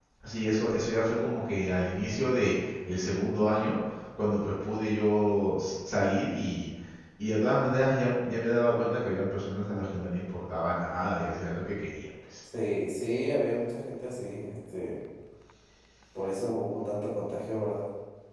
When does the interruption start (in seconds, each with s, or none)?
none